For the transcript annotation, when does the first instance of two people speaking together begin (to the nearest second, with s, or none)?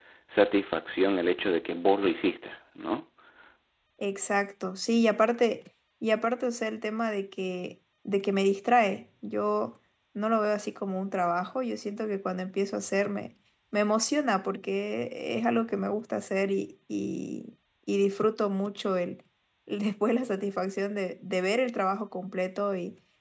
none